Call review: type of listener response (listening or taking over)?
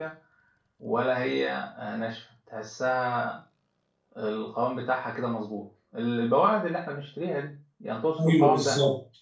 taking over